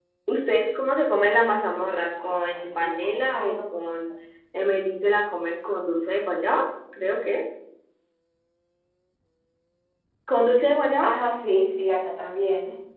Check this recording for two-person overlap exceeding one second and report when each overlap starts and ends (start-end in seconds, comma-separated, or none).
2.2-3.6